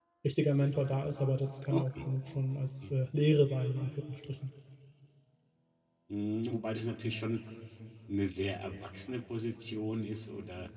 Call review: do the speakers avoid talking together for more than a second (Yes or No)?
Yes